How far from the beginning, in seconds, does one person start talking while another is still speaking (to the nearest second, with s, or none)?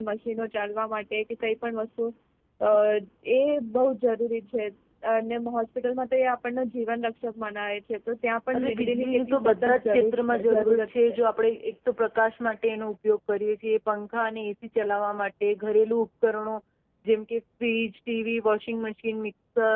9 s